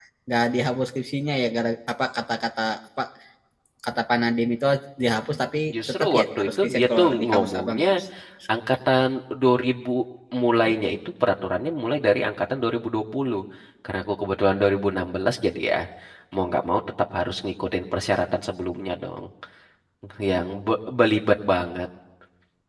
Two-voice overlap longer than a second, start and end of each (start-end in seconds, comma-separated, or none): 6.0-7.9